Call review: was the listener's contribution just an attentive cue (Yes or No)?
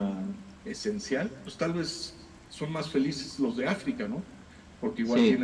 Yes